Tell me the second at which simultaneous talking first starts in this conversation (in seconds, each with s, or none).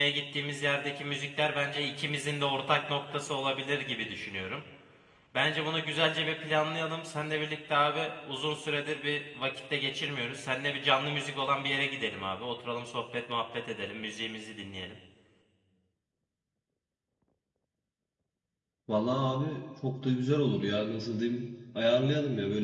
none